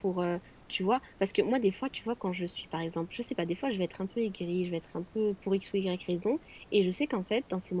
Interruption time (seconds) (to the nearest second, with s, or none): none